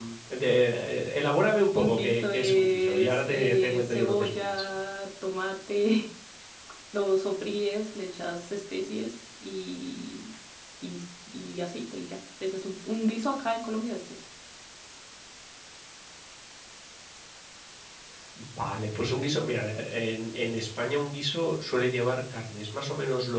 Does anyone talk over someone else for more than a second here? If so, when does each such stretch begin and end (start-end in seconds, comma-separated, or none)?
1.8-4.7